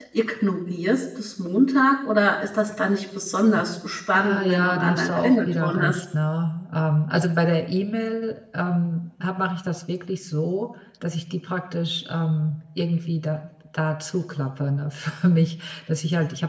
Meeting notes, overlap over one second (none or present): present